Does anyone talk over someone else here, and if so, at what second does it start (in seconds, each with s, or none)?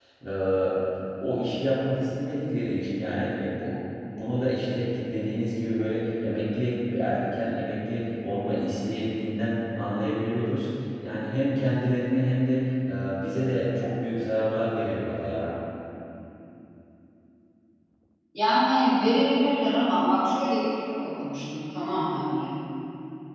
none